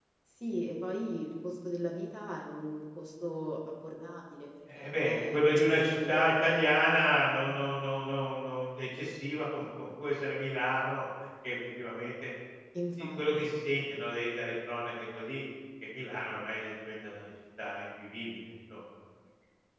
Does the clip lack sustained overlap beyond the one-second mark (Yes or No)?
No